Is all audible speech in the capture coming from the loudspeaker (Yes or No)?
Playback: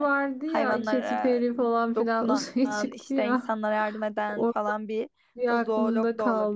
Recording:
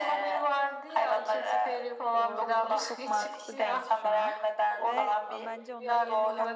No